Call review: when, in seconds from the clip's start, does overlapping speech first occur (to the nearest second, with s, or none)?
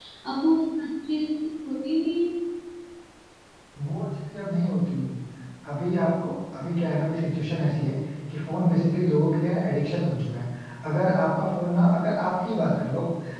none